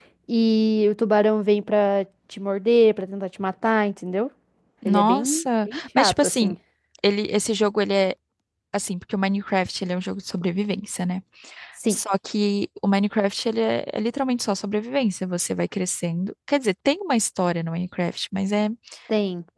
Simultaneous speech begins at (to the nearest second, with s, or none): 5 s